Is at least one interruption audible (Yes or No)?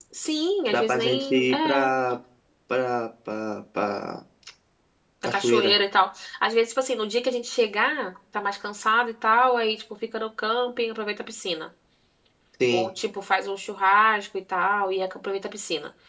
Yes